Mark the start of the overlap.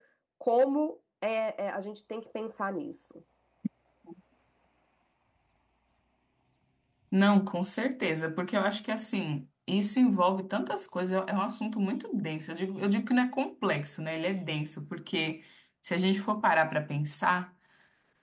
none

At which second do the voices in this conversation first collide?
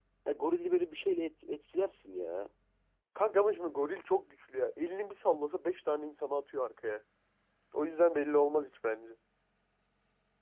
none

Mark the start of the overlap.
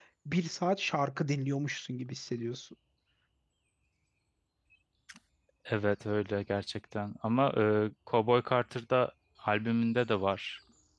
none

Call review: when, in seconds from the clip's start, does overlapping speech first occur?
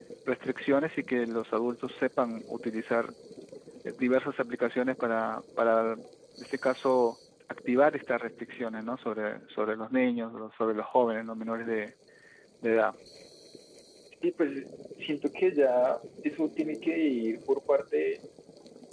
none

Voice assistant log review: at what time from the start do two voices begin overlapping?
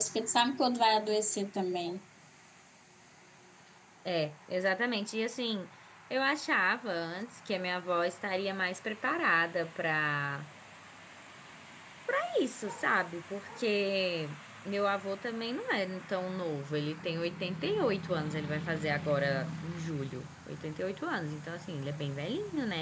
none

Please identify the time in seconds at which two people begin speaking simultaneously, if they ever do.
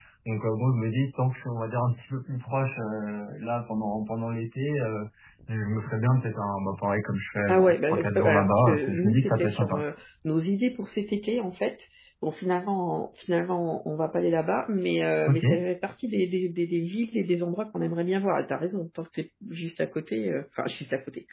7.5 s

